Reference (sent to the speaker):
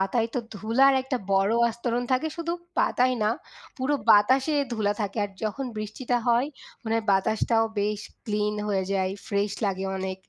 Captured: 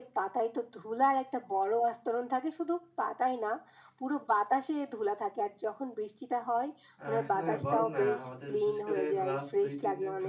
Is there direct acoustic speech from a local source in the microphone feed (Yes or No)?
Yes